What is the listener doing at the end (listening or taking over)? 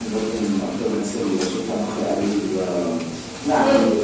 taking over